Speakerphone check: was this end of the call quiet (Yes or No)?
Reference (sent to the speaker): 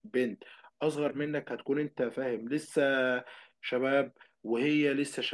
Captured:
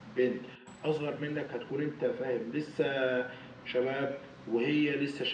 Yes